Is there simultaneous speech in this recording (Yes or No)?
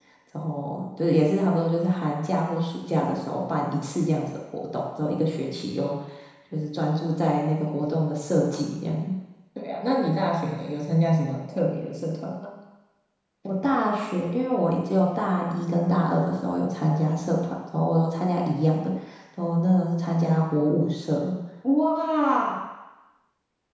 No